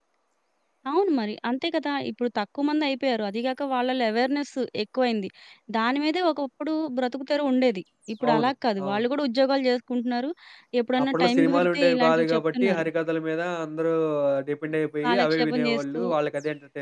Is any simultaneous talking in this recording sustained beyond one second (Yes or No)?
Yes